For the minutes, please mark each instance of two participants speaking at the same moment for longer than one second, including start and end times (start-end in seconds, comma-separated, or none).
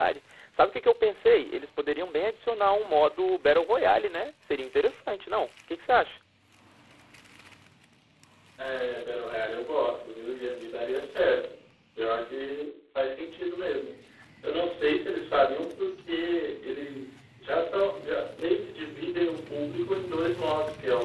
none